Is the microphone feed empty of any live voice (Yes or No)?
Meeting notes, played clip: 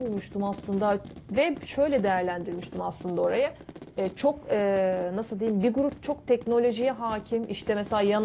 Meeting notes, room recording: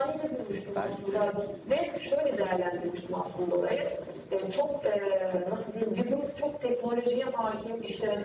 No